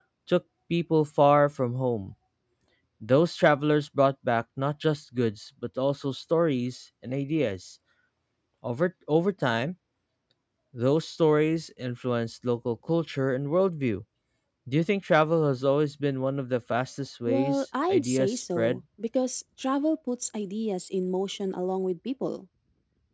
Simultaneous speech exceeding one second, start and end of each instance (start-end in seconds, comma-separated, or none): 17.3-18.8